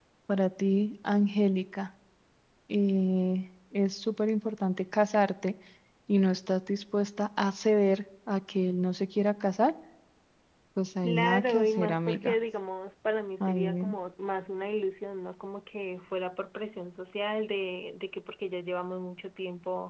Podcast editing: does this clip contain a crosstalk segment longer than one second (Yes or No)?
Yes